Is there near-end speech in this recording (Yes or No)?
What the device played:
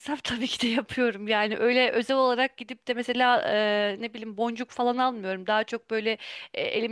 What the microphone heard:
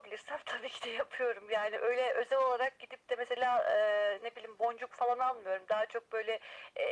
No